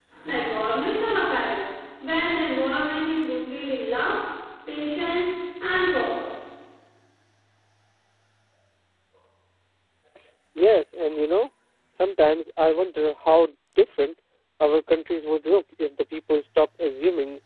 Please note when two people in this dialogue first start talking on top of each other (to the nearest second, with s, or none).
none